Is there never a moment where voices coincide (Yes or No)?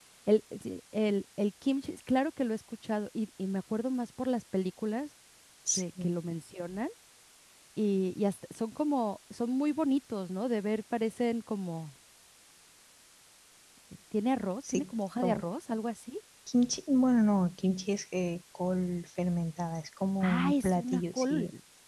No